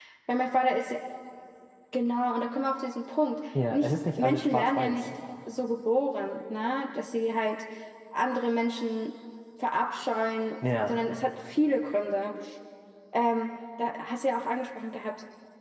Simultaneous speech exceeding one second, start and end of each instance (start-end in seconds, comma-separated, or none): 3.7-5.0